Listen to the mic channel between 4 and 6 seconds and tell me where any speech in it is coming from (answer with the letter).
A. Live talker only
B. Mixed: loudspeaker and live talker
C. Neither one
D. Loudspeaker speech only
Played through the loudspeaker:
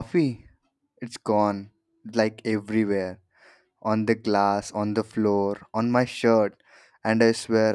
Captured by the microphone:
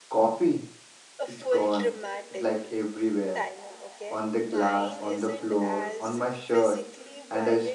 B